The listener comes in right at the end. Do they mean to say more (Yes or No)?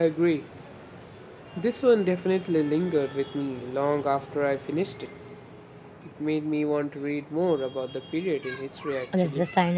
Yes